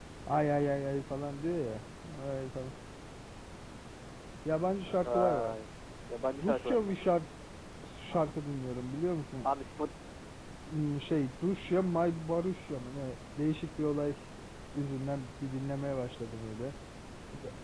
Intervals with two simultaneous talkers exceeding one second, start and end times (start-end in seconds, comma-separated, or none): none